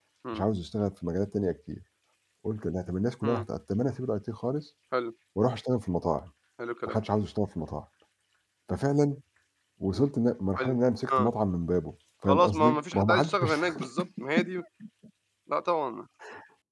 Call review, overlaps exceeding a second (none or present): present